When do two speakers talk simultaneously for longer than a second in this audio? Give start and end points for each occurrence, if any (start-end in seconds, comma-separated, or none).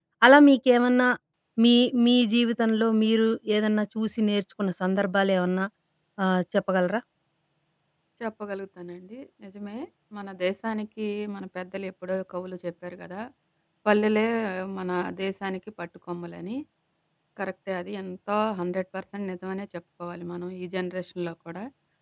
none